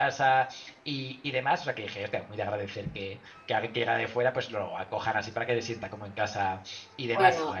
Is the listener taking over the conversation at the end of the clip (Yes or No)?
Yes